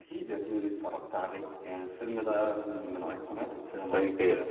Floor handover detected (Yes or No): Yes